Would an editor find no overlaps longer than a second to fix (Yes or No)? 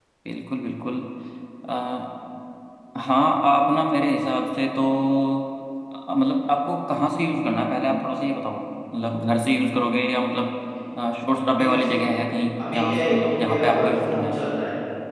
No